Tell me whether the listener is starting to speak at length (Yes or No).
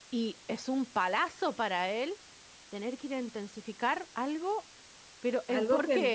Yes